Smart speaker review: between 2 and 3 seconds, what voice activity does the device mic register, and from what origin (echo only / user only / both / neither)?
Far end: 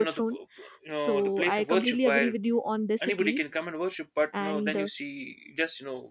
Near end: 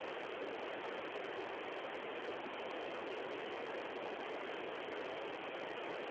neither